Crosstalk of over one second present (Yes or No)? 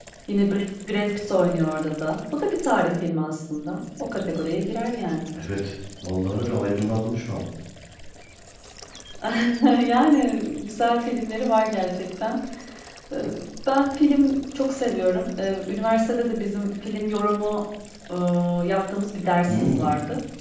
No